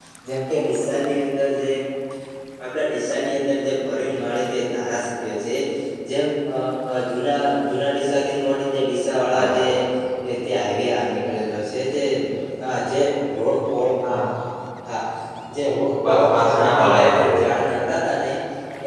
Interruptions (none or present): present